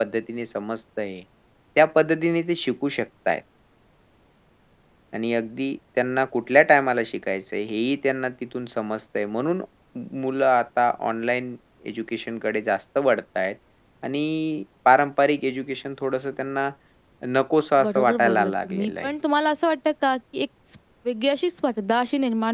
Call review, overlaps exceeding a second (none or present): present